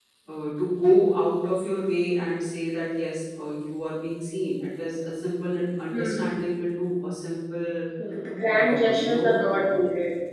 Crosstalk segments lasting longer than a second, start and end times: 8.5-9.8

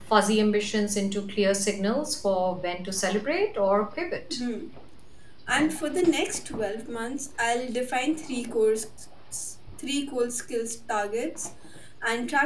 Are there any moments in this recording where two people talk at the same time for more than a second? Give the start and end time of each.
none

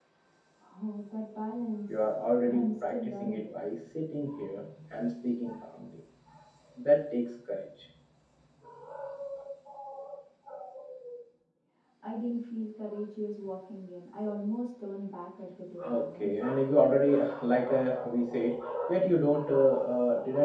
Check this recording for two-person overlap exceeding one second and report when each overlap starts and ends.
1.9-3.4

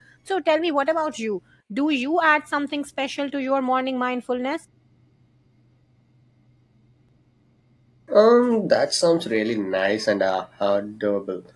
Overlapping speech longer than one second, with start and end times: none

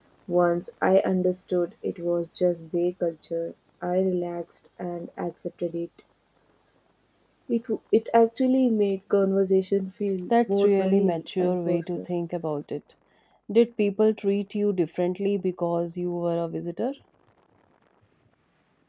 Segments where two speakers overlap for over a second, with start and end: 10.5-12.1

